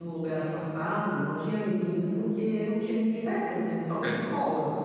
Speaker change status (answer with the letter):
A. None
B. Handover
A